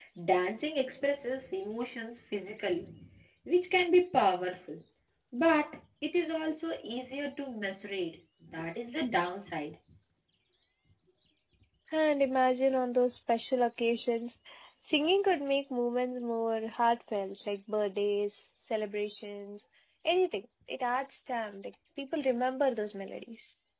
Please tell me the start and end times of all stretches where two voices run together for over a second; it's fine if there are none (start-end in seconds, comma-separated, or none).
none